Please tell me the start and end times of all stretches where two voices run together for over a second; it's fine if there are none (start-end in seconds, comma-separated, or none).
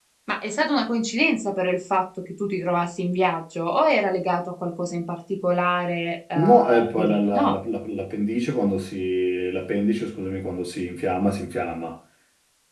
6.3-7.6